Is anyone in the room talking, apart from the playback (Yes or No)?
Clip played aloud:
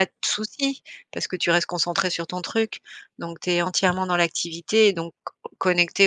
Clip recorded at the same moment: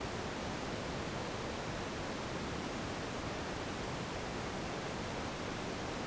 No